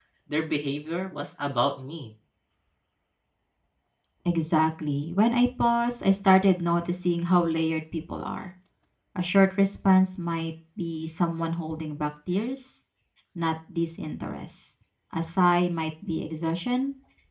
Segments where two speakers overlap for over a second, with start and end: none

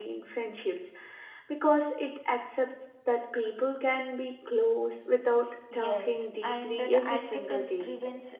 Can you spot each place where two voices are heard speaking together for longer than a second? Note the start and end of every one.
5.7-7.9

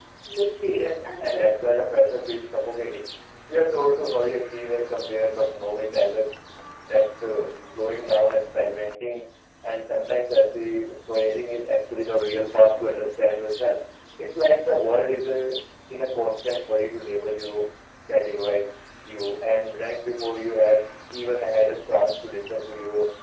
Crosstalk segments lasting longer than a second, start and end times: 0.7-2.0

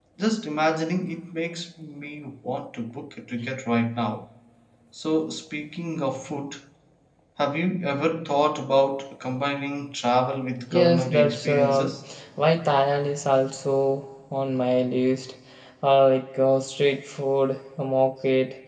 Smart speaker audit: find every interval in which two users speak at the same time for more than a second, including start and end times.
10.7-11.9

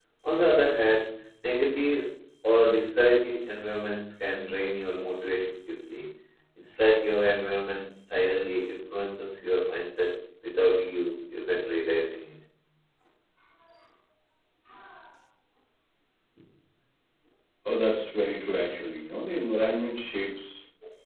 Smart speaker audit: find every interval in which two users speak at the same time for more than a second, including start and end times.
none

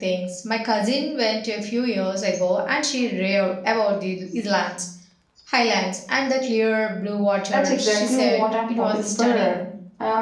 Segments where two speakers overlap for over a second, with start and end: 7.5-9.6

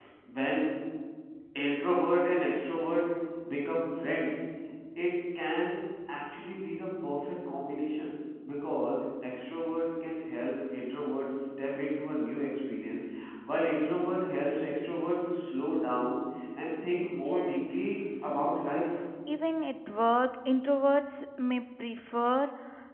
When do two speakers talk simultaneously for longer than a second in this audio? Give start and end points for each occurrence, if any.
17.2-18.5

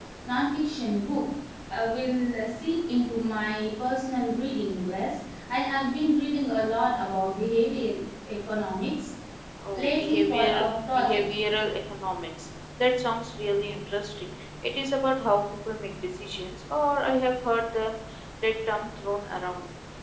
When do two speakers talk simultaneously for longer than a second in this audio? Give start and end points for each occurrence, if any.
9.8-11.2

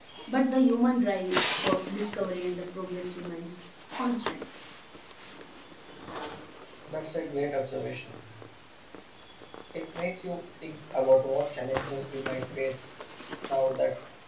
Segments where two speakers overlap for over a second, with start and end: none

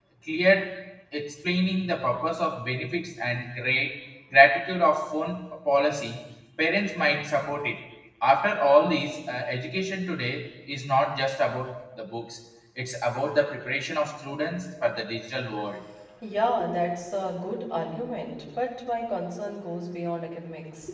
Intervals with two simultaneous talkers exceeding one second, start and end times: none

